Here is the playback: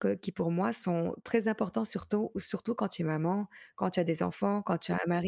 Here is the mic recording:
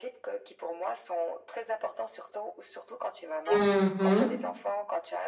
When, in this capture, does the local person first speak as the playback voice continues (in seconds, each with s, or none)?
3.5 s